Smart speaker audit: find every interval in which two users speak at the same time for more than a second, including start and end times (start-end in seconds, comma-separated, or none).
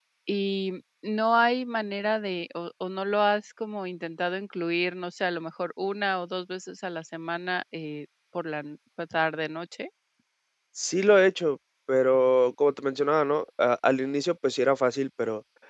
none